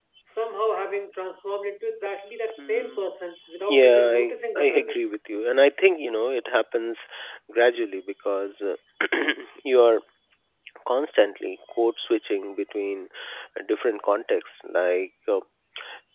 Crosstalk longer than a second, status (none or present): present